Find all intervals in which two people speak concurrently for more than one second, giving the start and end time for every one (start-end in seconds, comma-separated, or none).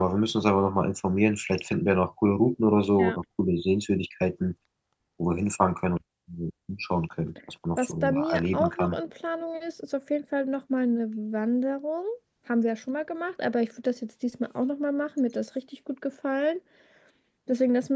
7.8-9.0